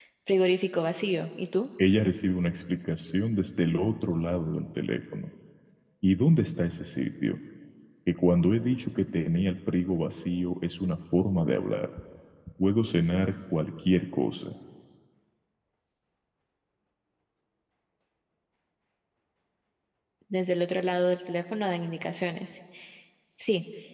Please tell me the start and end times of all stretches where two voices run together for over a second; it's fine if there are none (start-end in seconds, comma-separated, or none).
none